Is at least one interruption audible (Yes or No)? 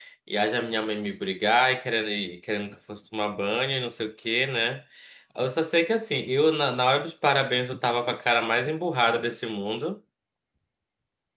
No